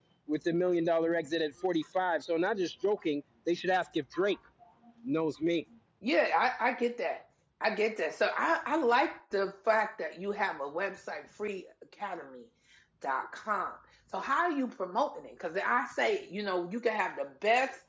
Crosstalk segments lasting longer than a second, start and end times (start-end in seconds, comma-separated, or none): none